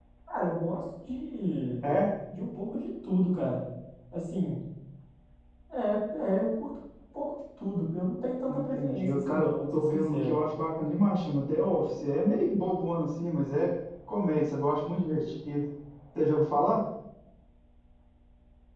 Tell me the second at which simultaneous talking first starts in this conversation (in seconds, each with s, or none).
8.5 s